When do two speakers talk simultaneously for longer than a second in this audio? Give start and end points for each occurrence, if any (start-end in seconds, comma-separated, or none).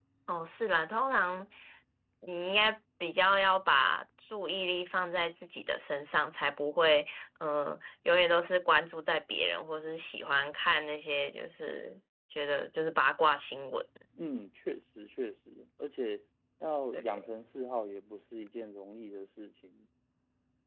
none